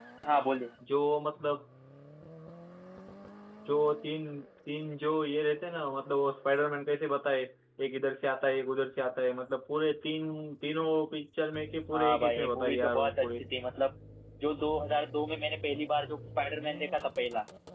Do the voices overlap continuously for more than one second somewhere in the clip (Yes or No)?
Yes